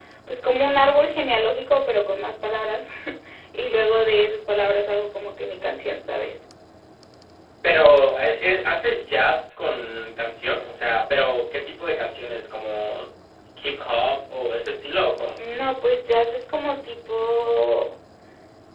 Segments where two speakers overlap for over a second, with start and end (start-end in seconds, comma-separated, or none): none